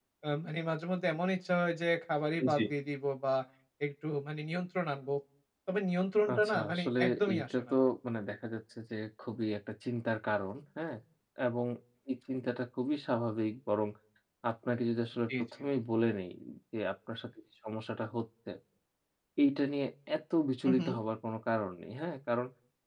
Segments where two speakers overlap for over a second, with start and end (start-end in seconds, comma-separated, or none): 6.3-7.8